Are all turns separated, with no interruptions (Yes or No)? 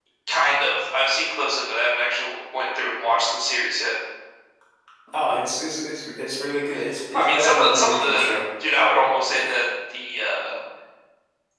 No